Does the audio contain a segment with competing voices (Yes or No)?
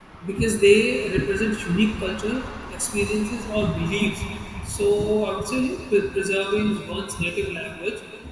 No